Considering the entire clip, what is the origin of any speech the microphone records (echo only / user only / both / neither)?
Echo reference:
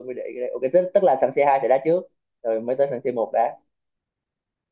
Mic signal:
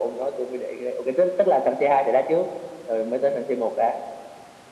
echo only